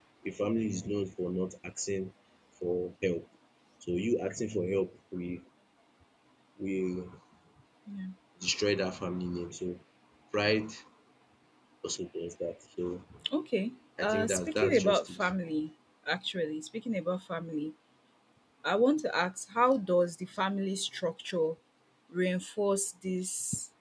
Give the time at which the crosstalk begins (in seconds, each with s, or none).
14.0 s